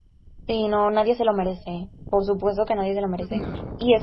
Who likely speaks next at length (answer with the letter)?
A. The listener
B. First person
B